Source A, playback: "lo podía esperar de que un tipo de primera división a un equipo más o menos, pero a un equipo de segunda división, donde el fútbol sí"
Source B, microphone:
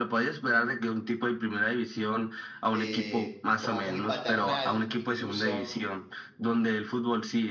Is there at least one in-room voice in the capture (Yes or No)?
Yes